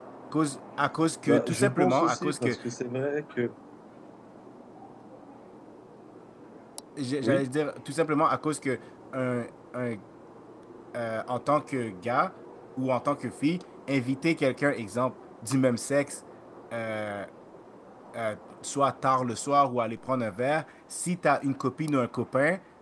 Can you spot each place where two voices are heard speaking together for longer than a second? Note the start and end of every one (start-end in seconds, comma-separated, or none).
1.2-2.6